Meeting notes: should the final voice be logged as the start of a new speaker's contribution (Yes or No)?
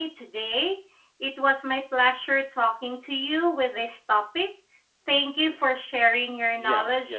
Yes